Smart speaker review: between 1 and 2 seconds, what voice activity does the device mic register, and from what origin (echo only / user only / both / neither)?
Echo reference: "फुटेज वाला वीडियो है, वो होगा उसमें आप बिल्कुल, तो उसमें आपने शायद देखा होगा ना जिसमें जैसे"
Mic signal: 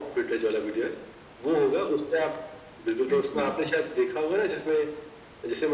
echo only